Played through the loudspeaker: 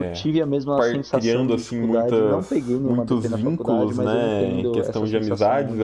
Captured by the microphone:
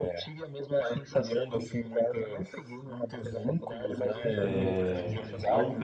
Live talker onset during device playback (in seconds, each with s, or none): 4.3 s